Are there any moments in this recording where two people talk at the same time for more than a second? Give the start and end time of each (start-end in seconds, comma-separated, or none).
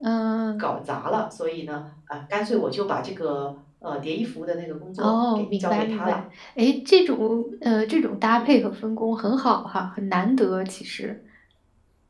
5.0-6.2